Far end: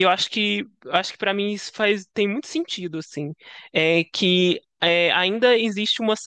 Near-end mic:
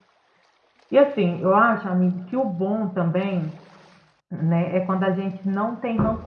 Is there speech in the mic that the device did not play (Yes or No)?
Yes